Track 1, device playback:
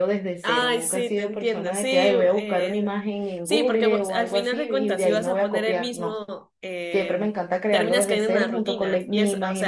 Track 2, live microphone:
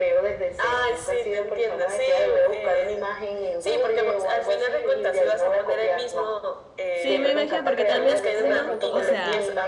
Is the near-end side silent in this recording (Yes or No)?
No